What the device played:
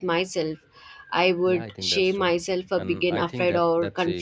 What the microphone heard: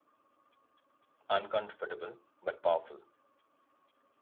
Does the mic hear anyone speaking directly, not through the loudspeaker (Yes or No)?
Yes